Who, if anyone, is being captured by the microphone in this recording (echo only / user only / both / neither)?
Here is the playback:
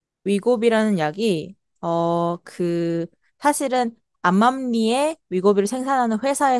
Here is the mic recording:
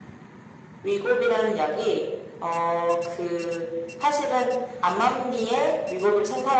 echo only